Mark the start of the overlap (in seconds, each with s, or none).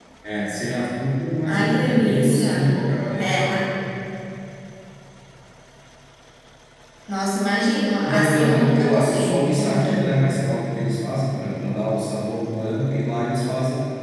1.4 s